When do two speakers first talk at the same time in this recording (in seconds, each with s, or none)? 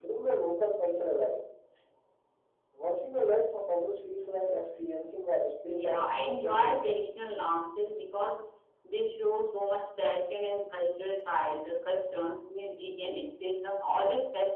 5.7 s